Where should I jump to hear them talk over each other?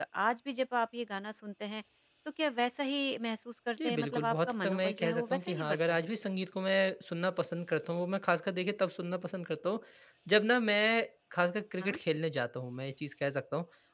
3.8 s

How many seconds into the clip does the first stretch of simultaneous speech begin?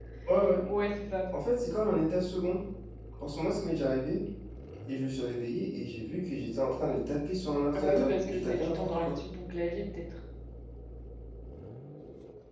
7.7 s

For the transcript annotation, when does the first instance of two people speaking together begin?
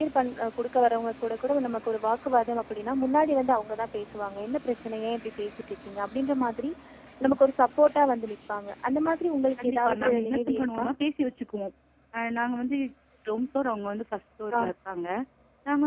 9.6 s

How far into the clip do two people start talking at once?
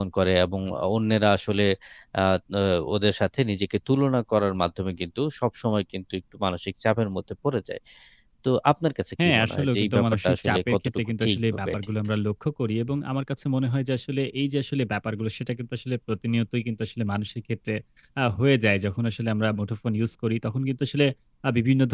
9.2 s

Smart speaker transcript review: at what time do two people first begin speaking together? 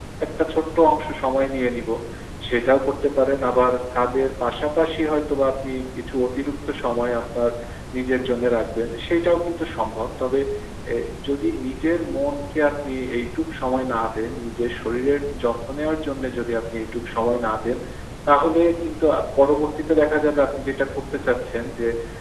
none

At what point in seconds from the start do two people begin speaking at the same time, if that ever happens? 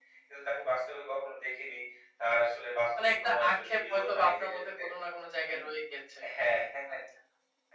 3.0 s

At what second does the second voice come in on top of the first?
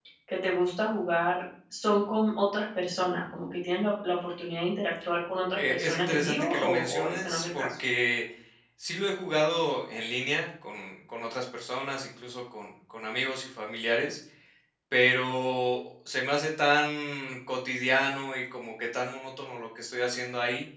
5.4 s

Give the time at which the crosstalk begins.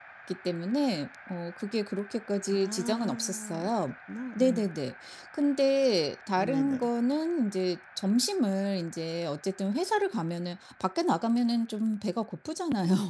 2.5 s

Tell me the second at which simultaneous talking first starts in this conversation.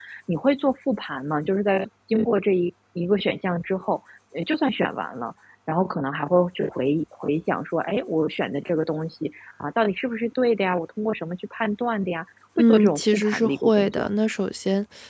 12.6 s

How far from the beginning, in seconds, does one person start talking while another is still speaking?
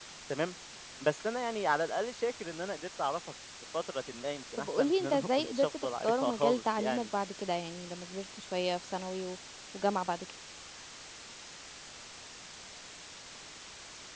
4.6 s

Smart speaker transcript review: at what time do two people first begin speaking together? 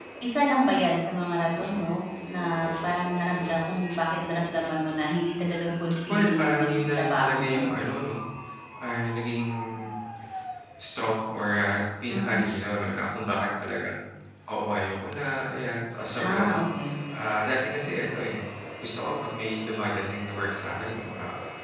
6.1 s

